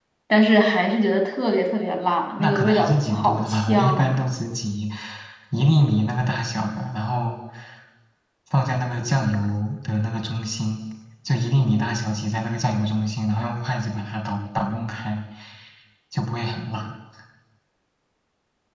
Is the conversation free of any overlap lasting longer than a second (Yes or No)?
No